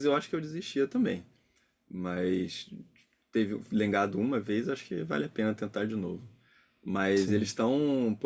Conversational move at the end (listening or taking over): listening